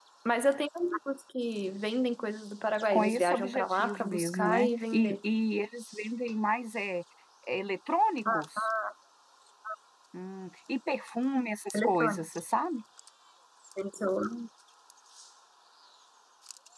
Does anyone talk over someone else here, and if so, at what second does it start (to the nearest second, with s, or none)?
3 s